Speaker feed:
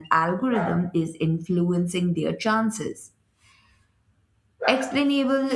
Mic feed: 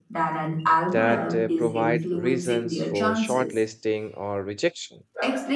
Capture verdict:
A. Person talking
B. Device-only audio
A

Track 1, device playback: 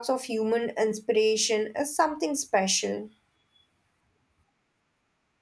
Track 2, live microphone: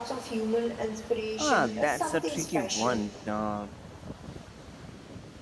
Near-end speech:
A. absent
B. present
B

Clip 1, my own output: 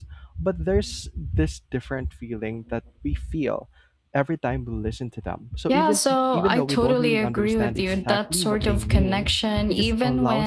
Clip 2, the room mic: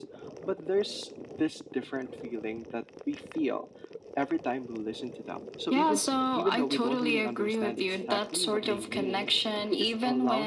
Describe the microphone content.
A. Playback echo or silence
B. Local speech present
A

